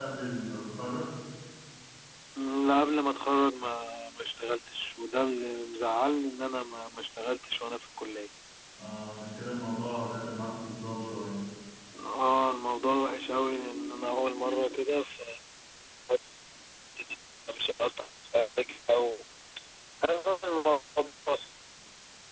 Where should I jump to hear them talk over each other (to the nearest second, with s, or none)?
none